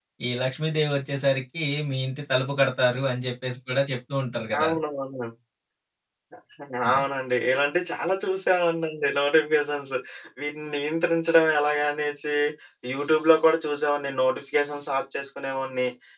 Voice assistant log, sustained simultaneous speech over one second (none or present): none